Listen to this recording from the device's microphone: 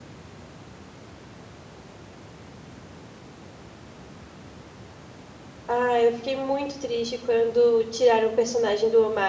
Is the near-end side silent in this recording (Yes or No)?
No